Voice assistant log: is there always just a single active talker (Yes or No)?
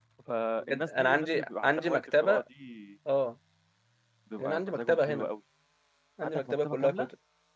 No